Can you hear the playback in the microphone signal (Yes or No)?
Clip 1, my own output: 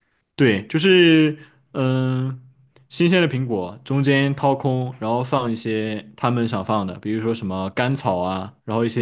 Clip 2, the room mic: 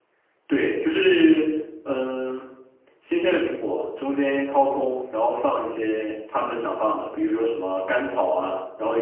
Yes